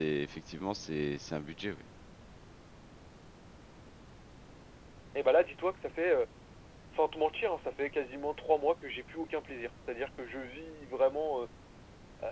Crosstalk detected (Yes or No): No